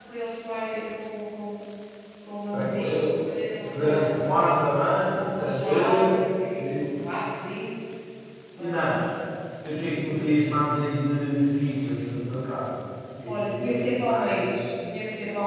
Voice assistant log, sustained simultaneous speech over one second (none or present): present